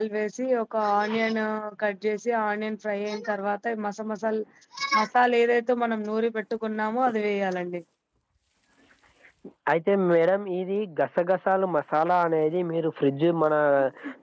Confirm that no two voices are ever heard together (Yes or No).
Yes